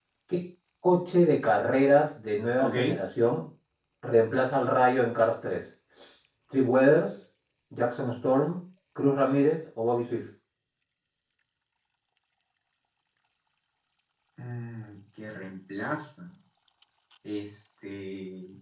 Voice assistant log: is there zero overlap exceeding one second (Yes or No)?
Yes